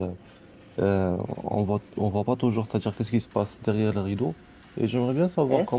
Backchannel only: Yes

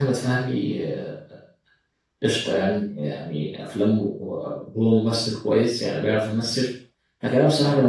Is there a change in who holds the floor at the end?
No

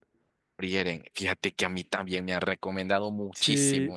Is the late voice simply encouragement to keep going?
No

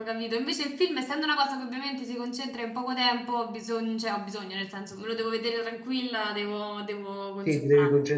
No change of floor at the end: No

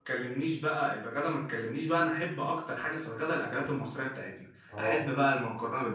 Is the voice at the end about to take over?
No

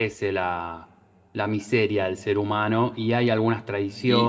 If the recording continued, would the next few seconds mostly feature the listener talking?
Yes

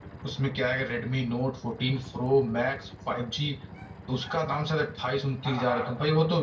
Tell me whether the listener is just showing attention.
Yes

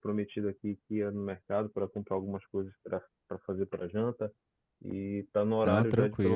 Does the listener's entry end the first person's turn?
No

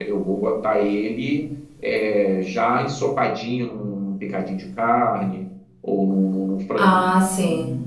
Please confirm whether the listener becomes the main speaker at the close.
No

